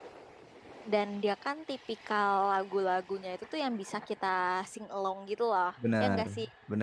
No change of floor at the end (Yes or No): No